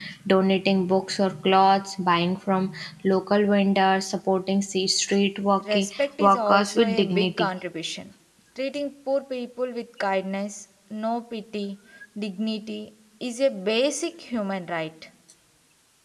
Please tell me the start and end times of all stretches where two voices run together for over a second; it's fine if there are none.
5.7-7.5

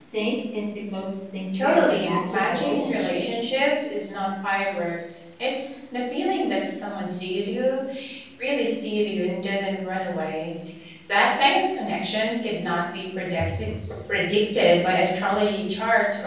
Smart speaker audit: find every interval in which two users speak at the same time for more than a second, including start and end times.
1.6-3.2

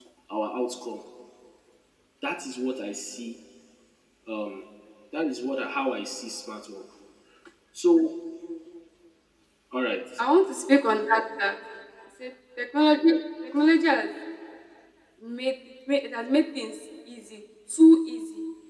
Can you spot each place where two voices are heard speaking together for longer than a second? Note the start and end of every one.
none

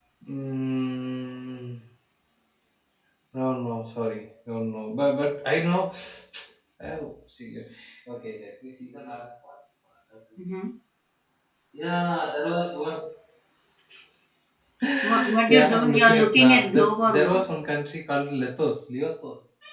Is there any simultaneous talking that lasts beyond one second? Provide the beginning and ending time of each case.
15.0-17.4

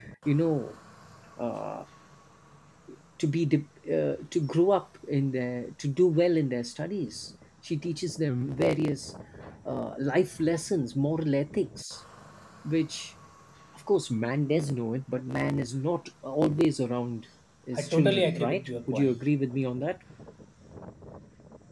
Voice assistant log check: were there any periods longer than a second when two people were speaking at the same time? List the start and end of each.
17.8-19.2

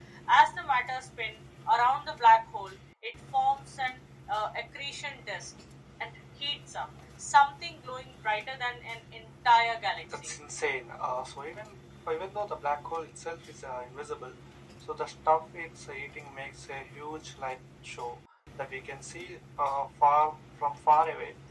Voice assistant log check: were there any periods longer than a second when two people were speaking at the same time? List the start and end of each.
none

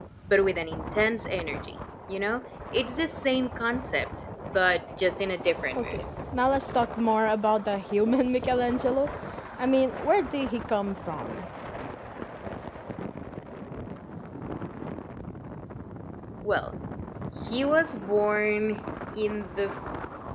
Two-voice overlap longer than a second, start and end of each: none

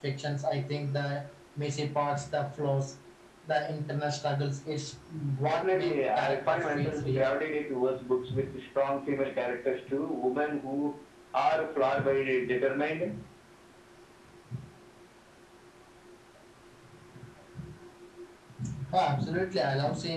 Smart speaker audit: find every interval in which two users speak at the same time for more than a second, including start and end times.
5.4-7.3

